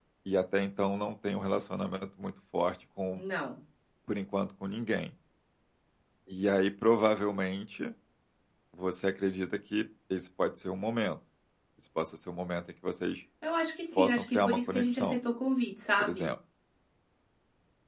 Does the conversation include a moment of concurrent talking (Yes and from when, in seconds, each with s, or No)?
Yes, from 14.0 s